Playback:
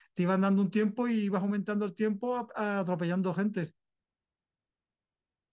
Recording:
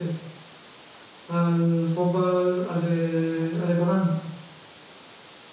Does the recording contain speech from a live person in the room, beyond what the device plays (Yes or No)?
Yes